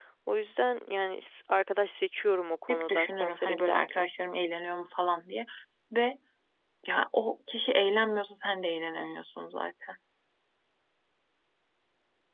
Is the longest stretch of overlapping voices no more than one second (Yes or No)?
No